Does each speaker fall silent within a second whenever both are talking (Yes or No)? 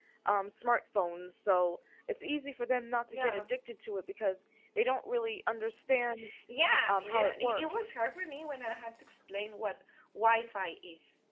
No